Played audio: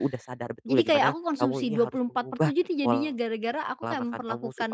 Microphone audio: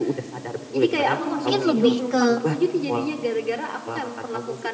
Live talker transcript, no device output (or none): Eee, mungkin lebih ke